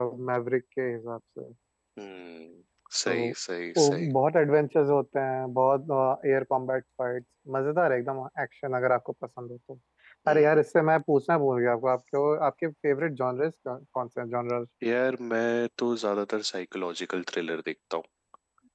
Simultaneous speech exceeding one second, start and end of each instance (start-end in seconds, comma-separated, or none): none